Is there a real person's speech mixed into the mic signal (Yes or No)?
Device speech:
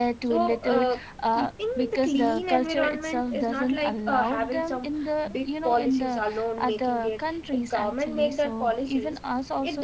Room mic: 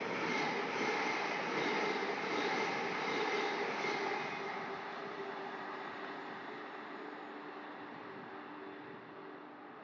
No